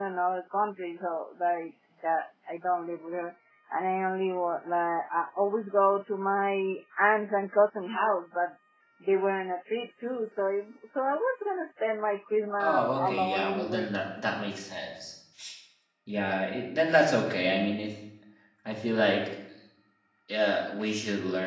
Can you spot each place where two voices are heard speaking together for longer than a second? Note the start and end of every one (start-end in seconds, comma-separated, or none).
12.6-13.9